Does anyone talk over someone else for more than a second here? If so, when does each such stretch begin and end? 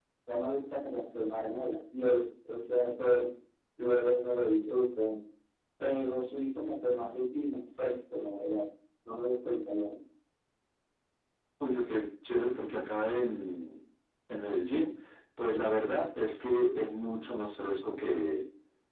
none

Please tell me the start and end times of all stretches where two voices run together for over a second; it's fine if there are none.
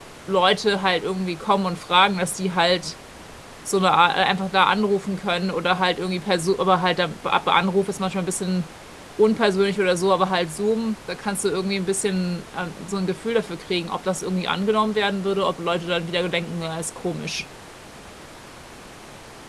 none

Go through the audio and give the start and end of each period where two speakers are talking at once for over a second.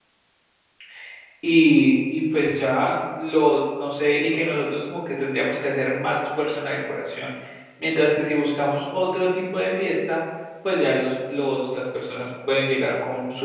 none

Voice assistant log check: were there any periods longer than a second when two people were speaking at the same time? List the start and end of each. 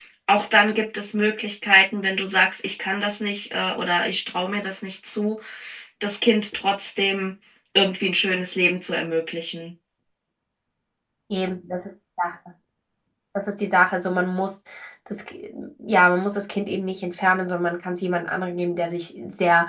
none

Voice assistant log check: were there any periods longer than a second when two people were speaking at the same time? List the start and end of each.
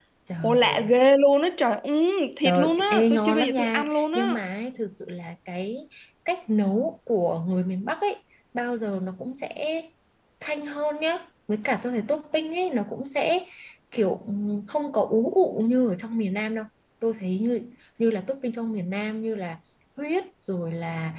2.4-4.4

